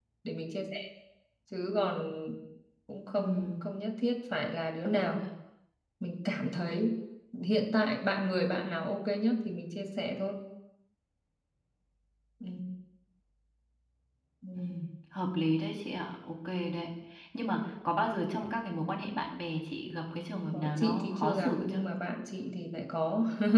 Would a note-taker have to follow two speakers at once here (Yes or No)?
Yes